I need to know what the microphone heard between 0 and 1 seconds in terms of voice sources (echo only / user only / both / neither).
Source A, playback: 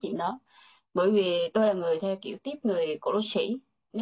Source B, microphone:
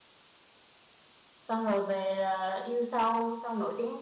neither